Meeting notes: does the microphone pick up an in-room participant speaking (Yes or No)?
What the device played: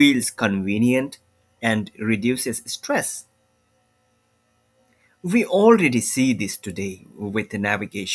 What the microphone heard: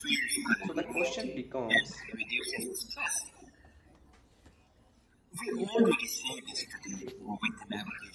Yes